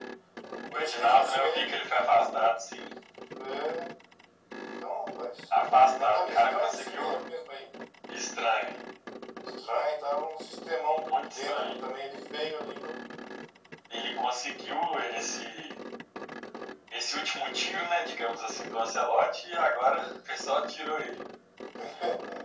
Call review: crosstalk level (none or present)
present